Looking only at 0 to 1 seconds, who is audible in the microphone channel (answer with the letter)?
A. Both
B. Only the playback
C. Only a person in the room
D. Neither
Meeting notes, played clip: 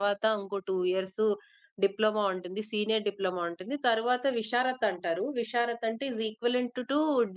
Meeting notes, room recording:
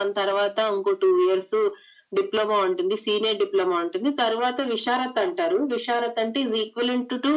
B